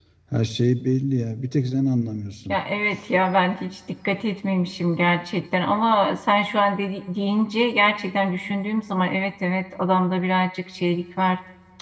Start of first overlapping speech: none

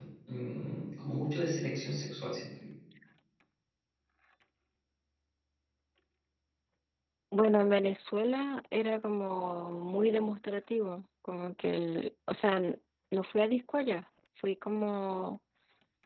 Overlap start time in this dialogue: none

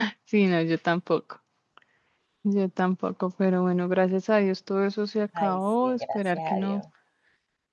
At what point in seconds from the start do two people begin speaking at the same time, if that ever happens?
5 s

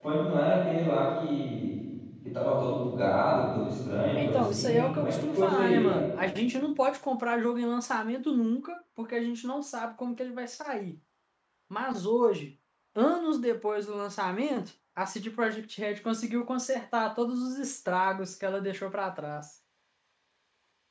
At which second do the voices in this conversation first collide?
4 s

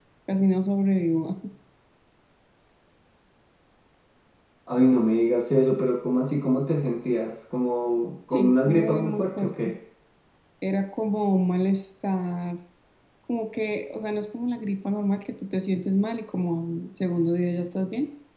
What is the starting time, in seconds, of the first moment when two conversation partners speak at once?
8 s

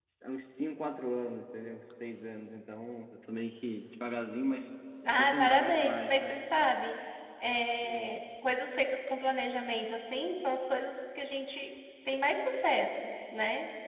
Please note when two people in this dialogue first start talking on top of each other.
5 s

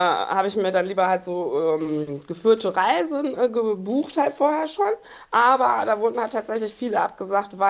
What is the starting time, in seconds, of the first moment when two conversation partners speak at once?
none

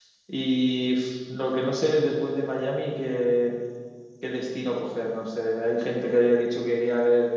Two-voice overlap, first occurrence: none

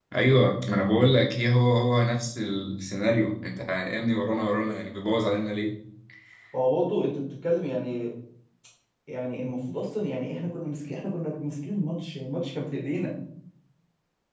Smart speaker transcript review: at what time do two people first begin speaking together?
none

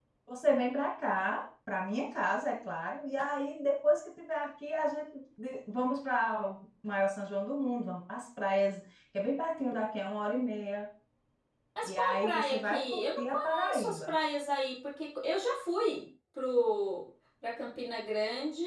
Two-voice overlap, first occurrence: 12 s

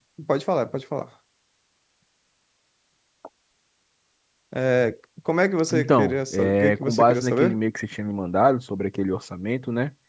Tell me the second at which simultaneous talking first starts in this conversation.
6 s

